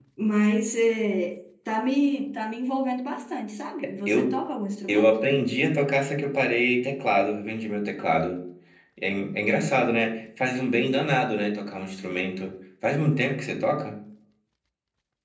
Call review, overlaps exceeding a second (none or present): none